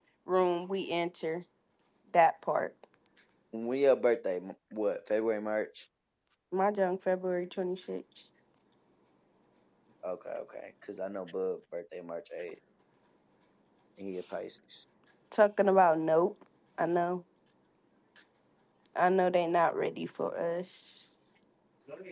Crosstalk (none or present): none